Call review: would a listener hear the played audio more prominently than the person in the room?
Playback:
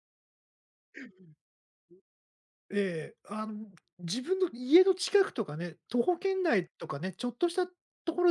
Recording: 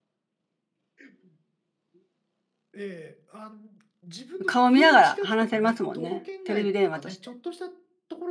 No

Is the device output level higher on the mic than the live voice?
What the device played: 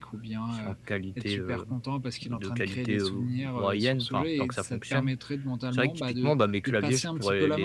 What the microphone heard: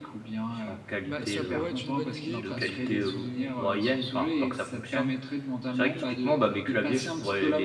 Yes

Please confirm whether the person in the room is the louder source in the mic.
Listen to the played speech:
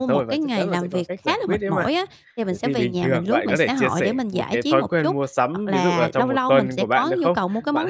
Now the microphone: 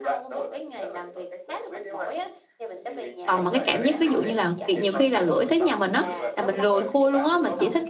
Yes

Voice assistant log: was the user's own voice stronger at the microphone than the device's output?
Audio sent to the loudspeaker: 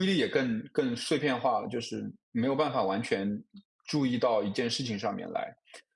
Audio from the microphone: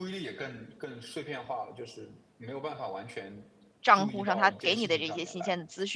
Yes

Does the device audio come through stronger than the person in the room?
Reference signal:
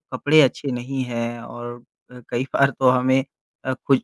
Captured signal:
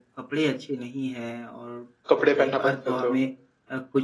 No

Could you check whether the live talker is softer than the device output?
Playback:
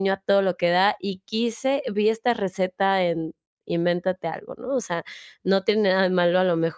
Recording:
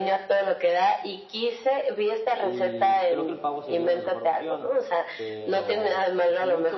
Yes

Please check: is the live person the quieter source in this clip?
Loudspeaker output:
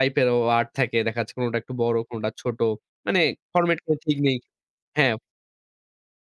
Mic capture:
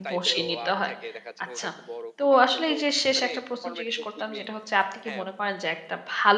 No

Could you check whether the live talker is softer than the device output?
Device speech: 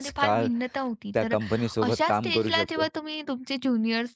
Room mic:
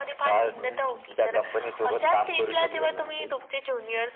Yes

